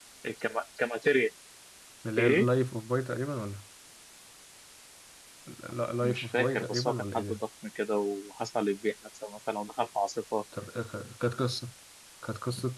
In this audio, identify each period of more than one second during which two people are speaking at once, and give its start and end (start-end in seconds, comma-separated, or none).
6.0-7.4